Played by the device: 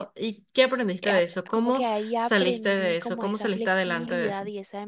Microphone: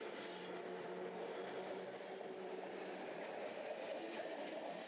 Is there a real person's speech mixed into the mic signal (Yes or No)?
No